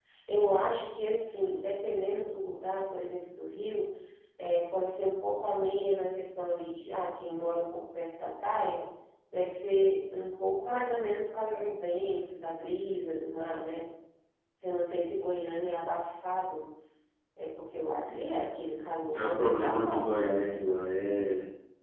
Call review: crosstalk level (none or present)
present